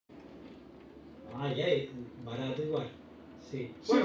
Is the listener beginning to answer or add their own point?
Yes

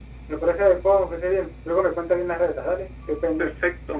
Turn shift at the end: Yes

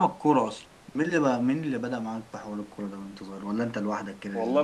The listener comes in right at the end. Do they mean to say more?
Yes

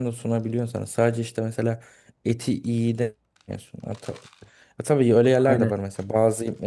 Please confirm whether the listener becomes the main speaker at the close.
No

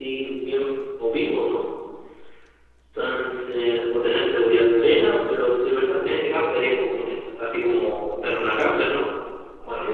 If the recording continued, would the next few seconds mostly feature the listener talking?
Yes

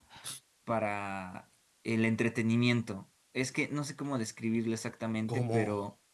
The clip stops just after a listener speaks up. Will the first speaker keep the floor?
Yes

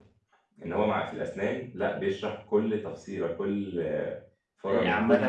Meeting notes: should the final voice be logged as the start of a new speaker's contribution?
Yes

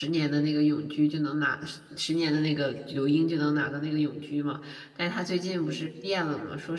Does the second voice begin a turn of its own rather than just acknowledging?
No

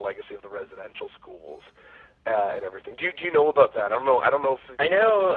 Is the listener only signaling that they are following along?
No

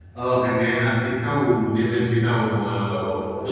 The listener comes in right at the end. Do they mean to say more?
No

